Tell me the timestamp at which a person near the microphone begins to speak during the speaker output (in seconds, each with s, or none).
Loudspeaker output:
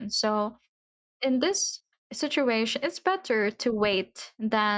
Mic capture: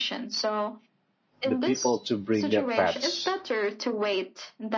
1.4 s